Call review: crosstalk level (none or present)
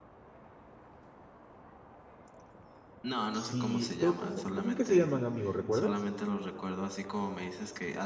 present